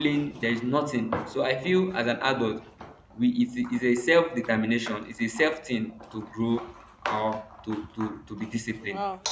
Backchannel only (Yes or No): No